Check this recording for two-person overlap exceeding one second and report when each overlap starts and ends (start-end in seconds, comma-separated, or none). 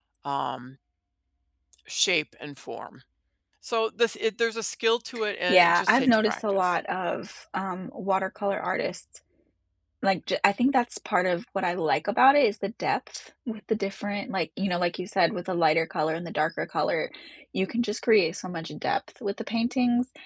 5.5-6.7